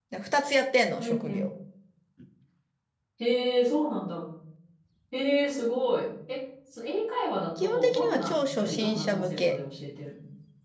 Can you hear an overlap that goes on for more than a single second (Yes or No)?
Yes